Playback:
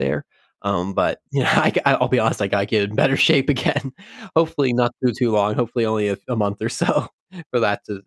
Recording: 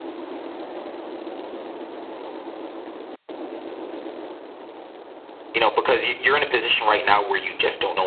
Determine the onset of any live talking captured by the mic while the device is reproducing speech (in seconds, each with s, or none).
5.5 s